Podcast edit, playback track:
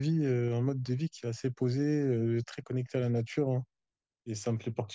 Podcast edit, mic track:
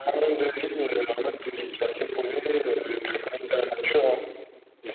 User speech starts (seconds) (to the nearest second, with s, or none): none